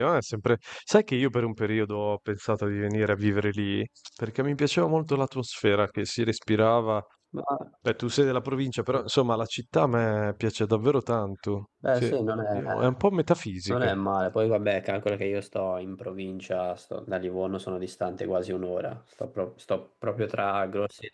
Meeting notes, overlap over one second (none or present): none